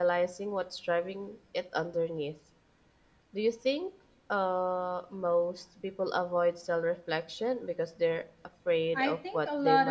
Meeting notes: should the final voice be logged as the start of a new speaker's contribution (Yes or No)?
Yes